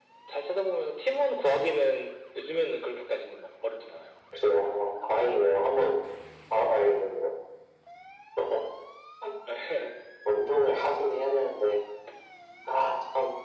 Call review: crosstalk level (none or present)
none